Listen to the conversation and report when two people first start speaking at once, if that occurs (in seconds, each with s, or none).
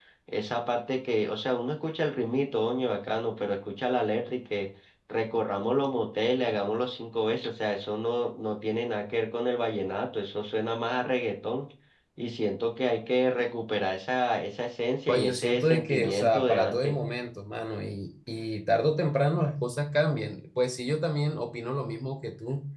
15.1 s